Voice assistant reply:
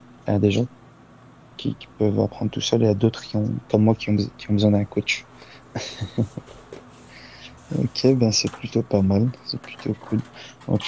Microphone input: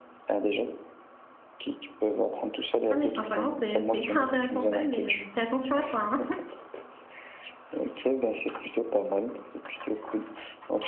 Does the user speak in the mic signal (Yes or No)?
Yes